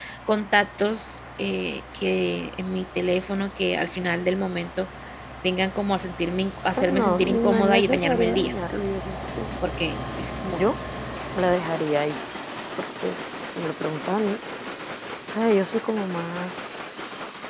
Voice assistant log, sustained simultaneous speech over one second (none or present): present